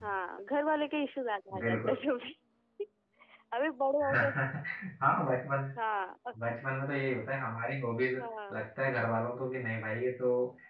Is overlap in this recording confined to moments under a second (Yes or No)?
Yes